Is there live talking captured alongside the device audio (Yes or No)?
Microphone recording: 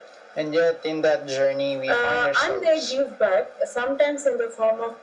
No